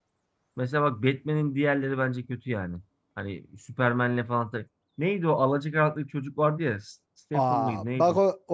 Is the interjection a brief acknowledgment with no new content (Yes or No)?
No